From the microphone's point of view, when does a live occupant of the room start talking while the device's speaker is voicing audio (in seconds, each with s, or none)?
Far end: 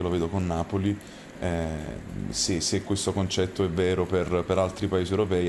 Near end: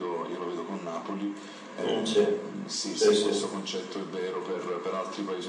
1.8 s